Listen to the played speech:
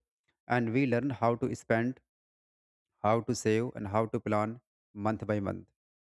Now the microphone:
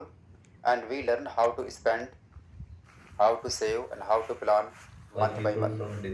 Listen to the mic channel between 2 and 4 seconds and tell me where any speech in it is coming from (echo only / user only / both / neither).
echo only